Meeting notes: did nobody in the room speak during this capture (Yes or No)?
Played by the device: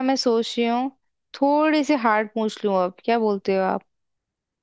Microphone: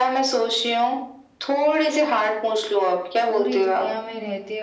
No